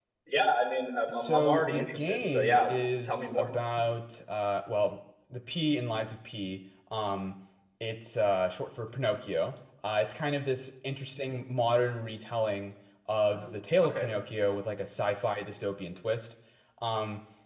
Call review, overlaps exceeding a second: present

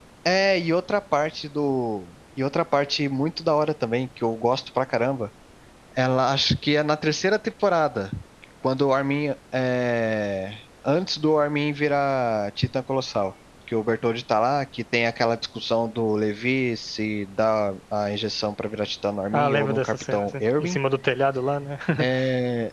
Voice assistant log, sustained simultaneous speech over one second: present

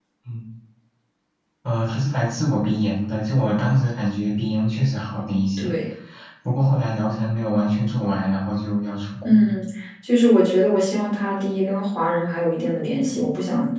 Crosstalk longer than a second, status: none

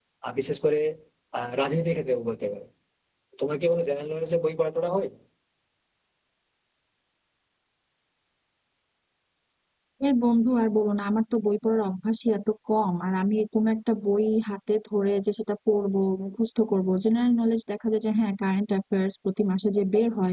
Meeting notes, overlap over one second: none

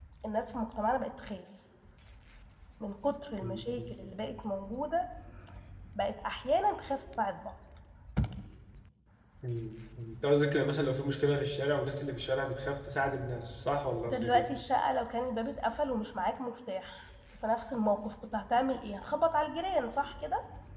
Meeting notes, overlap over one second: none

